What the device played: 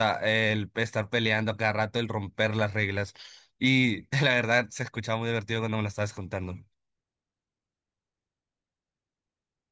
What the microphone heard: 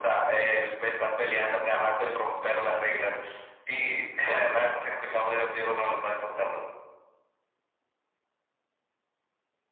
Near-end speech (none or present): none